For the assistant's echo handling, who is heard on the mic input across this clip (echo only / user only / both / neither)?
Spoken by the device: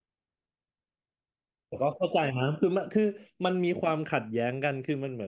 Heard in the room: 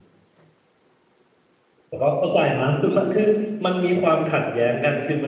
echo only